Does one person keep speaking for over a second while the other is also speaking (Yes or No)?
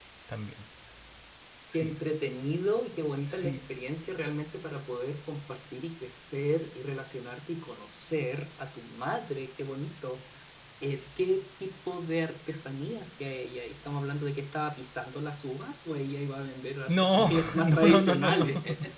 Yes